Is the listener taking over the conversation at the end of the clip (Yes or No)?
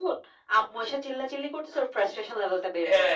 Yes